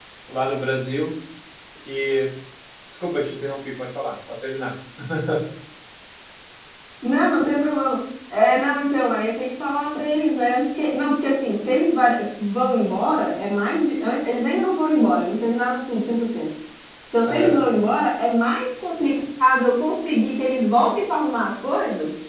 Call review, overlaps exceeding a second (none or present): none